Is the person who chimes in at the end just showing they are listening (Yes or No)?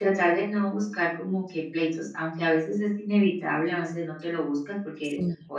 Yes